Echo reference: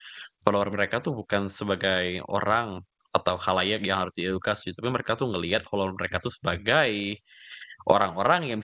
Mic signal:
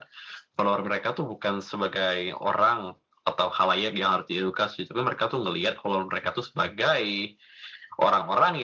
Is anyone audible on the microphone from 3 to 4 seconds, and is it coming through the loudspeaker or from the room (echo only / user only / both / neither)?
echo only